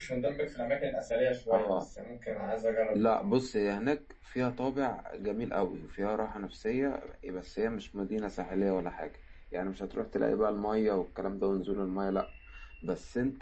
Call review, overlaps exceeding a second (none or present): none